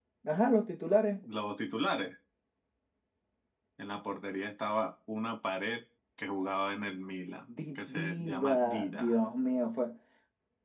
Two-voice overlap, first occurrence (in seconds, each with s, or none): 7.5 s